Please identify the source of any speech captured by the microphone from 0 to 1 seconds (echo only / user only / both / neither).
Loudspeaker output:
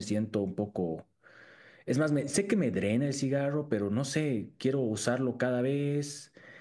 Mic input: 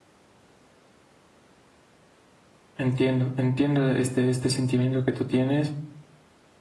neither